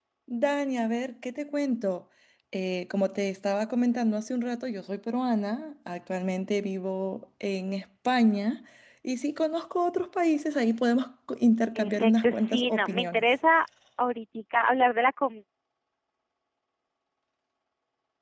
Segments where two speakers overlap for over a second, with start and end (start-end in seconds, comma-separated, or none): 11.8-13.2